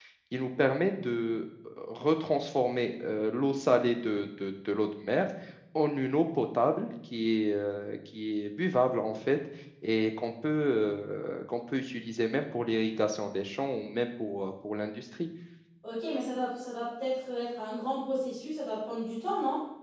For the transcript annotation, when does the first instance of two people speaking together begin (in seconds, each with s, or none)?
none